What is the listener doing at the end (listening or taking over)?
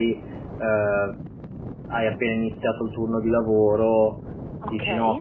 listening